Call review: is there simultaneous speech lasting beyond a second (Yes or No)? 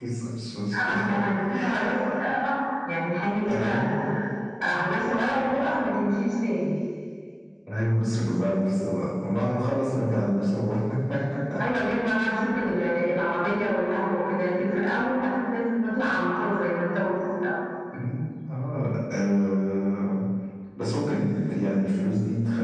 No